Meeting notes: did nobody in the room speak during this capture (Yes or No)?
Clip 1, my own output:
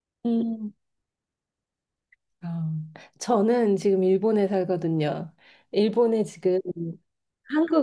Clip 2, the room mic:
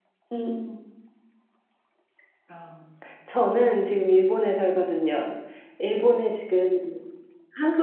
Yes